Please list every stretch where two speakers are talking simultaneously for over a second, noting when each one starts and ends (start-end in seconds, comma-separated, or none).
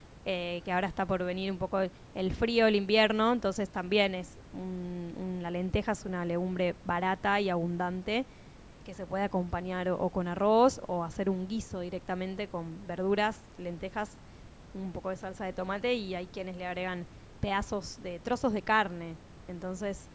none